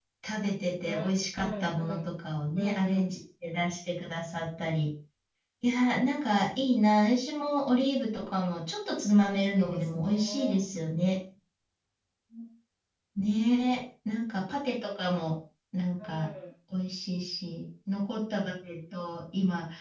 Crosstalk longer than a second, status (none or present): present